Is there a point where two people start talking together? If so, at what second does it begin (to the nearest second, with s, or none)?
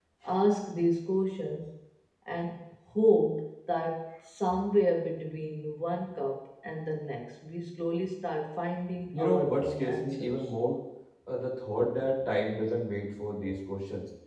9 s